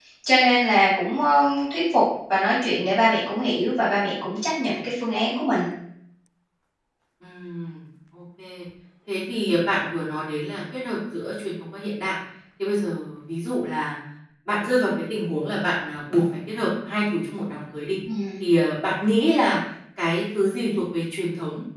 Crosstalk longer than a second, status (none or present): none